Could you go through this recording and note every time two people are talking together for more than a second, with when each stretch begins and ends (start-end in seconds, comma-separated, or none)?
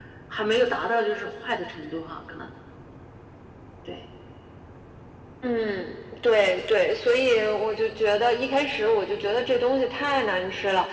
none